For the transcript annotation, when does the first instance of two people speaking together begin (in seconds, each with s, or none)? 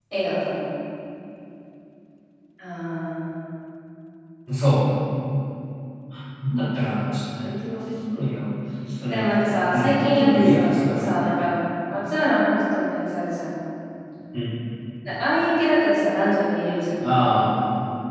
9.1 s